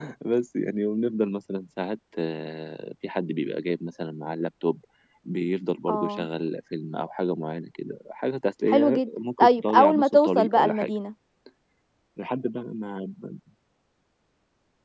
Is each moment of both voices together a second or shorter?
No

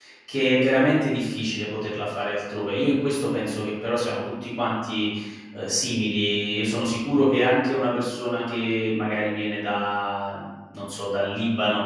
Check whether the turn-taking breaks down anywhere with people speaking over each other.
No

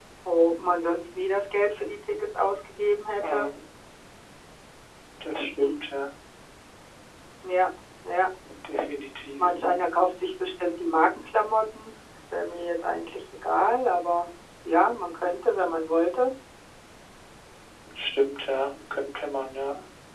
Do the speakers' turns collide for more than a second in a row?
No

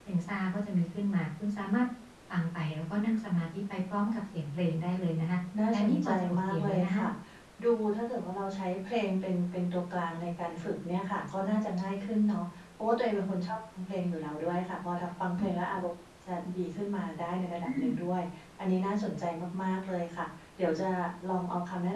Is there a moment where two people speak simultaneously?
Yes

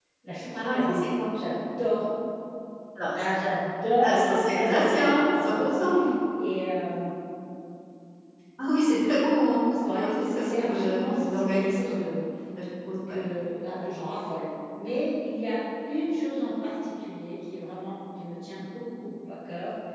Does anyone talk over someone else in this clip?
Yes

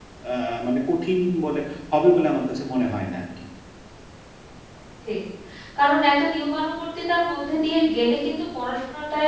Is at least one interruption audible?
No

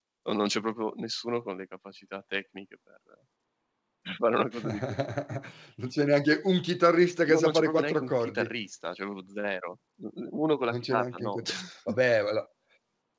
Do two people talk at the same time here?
Yes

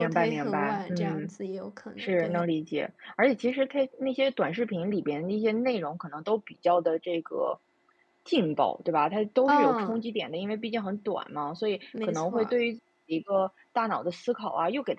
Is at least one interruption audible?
Yes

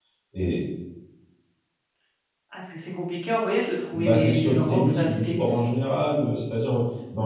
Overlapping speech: Yes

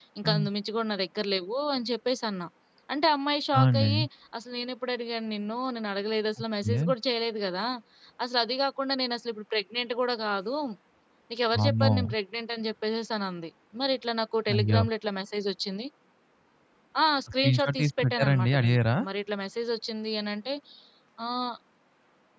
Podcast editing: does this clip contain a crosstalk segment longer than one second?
Yes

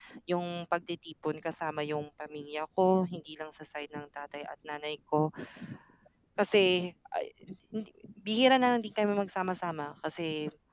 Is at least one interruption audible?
No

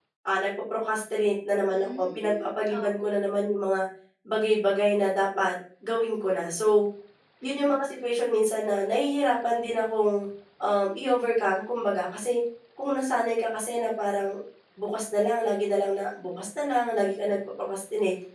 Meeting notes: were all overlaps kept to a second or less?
No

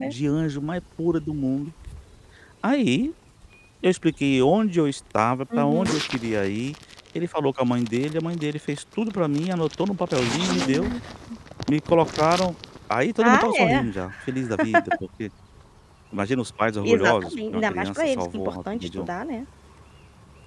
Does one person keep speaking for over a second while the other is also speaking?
Yes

